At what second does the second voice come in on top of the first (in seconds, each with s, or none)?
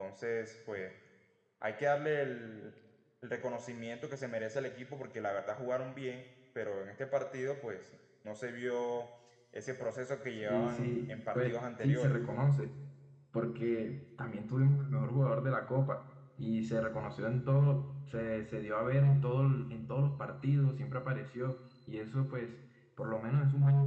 10.4 s